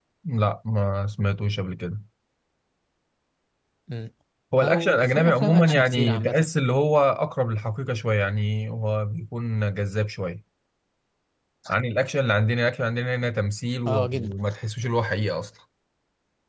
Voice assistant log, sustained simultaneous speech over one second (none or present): present